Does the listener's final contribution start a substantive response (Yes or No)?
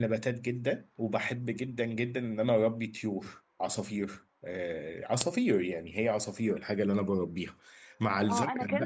Yes